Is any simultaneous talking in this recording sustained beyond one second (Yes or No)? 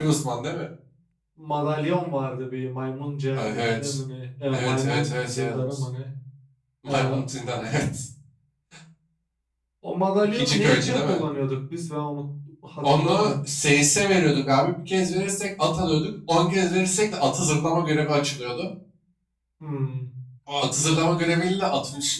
Yes